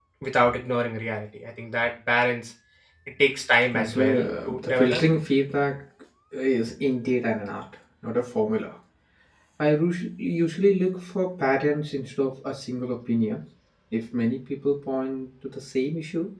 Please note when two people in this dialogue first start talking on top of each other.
4 s

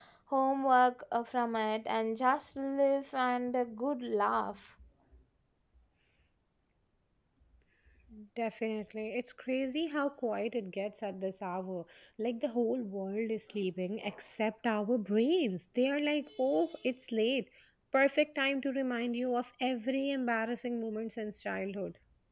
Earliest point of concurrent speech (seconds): none

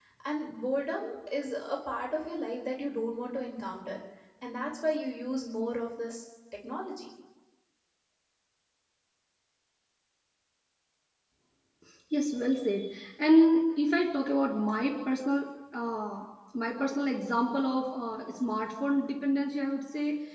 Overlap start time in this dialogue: none

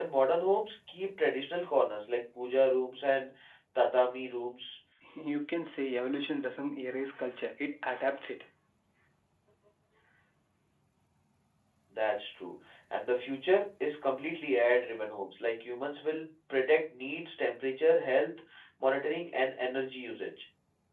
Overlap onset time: none

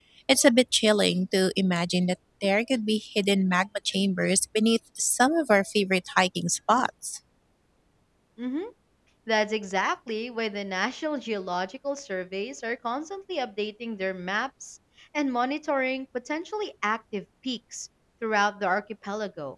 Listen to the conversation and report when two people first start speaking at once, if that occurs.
none

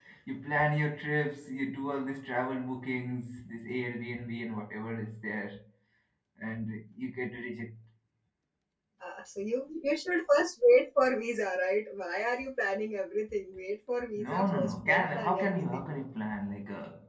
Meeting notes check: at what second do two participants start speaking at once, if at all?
14 s

